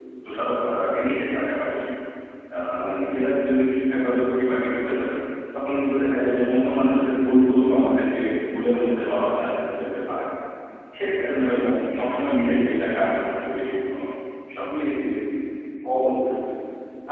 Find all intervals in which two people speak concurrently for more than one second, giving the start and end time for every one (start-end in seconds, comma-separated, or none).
none